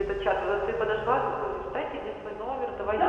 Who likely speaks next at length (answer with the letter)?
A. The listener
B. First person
A